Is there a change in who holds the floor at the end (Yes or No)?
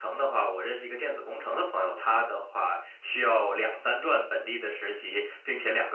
No